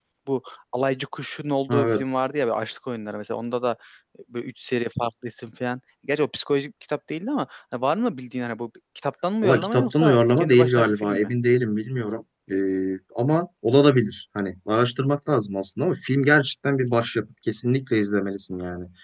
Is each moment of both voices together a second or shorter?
No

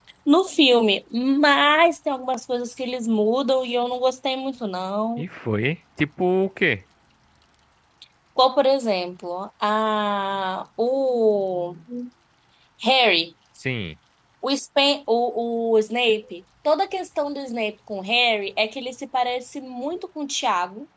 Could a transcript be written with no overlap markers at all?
Yes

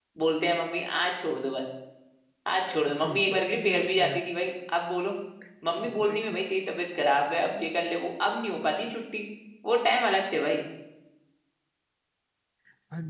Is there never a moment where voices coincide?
No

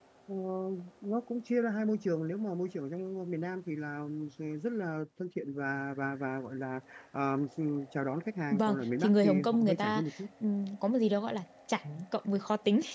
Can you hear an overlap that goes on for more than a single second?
Yes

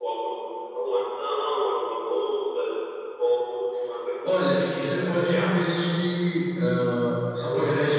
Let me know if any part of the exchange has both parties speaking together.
Yes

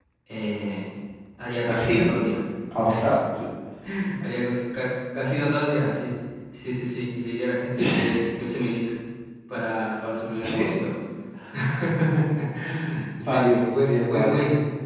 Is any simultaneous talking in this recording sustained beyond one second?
Yes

